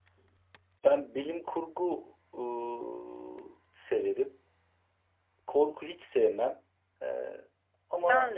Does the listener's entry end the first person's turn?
No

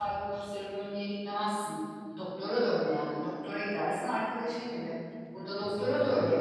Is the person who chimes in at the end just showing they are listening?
Yes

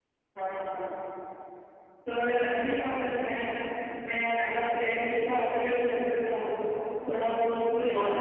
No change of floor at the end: No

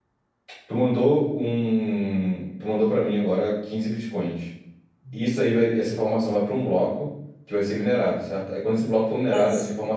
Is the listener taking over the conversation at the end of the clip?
No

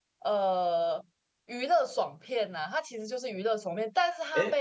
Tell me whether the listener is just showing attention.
Yes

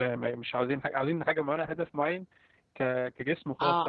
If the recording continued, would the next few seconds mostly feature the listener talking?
Yes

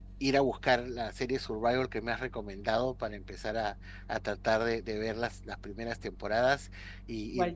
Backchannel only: Yes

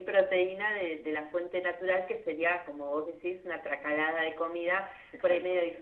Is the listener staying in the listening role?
Yes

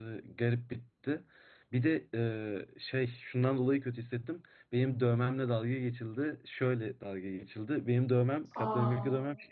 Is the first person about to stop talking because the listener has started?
No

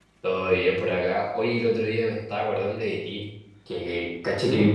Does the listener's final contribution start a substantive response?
No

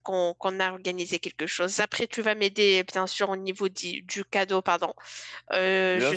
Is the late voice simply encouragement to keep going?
No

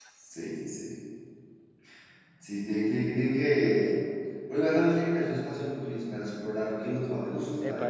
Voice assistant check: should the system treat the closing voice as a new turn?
Yes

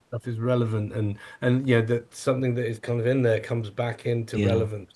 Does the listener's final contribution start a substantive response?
Yes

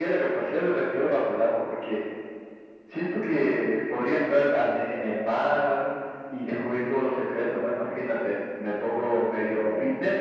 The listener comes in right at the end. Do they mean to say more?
No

